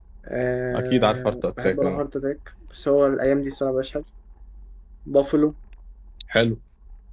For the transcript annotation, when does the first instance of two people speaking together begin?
0.7 s

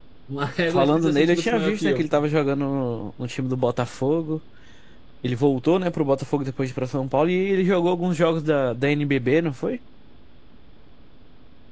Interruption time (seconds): 0.7 s

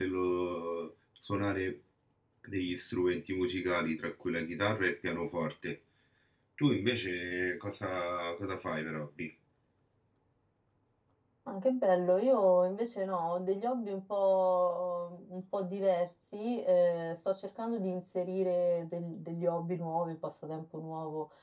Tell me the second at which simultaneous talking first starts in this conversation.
none

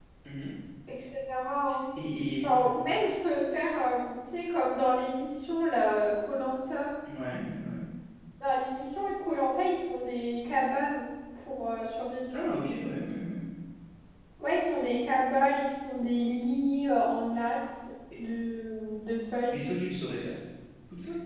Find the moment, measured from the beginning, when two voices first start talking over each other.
none

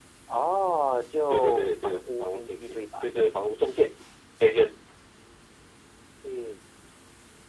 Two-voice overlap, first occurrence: 1.3 s

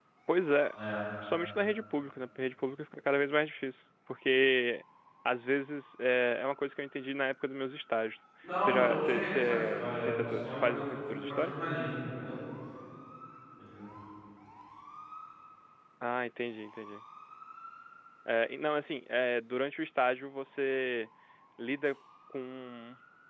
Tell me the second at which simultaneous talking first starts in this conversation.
8.4 s

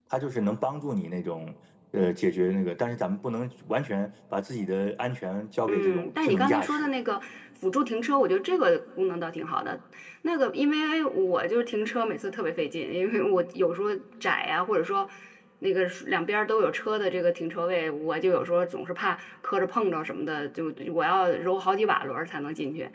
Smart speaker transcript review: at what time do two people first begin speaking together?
5.7 s

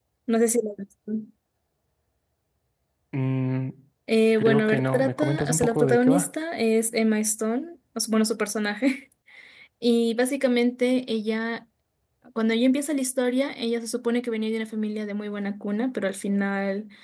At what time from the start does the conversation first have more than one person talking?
4.4 s

